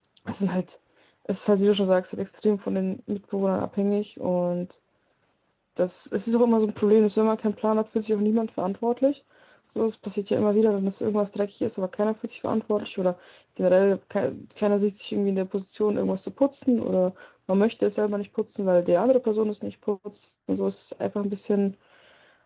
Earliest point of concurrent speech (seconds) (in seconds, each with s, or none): none